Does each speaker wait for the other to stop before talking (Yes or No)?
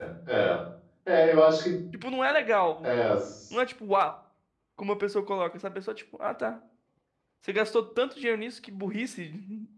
Yes